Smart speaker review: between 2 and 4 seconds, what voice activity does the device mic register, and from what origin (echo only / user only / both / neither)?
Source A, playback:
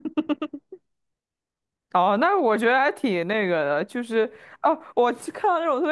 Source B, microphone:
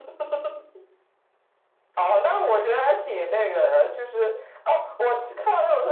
echo only